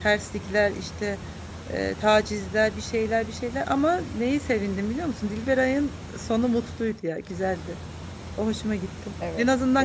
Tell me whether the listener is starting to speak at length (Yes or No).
No